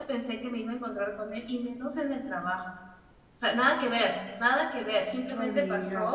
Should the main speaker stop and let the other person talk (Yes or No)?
No